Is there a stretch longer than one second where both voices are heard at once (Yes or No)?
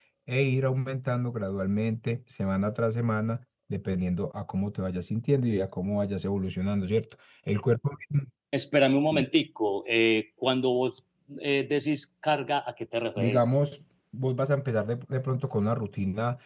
No